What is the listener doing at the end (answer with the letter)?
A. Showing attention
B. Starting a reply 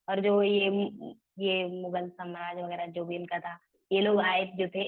A